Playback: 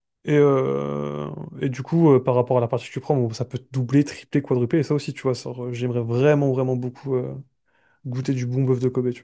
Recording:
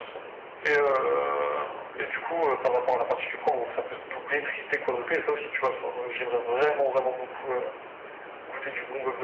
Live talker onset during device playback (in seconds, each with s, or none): none